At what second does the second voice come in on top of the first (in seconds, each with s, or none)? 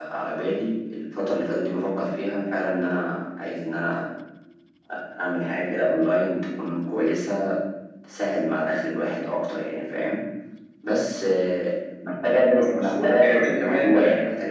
12.5 s